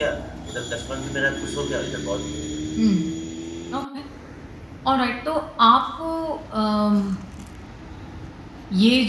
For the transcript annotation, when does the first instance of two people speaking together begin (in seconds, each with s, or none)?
none